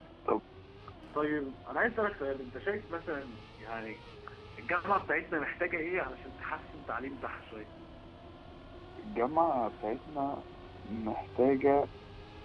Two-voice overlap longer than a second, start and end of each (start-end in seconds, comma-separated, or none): none